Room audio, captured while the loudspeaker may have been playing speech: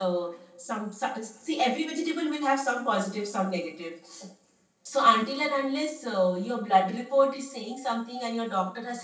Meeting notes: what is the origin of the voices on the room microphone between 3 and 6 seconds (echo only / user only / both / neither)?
user only